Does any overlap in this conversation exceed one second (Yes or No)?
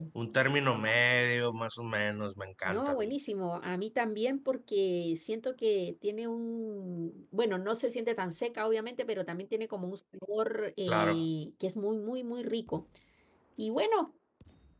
No